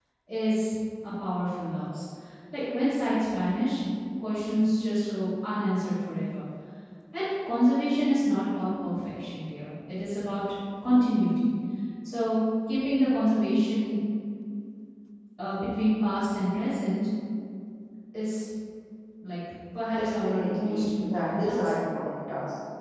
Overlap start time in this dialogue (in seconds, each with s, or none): 19.9 s